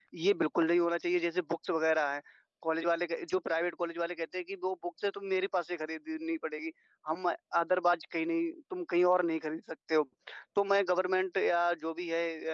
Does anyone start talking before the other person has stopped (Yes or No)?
No